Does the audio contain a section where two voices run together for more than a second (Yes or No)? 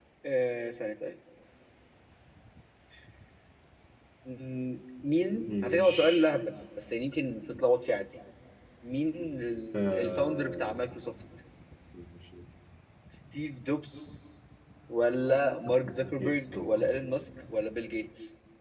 Yes